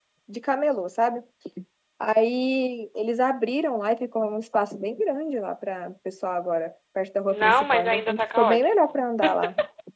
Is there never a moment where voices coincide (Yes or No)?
No